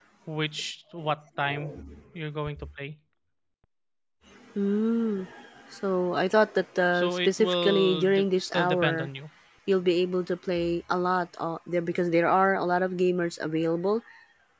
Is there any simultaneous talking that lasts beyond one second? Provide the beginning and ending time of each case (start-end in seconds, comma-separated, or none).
6.9-9.1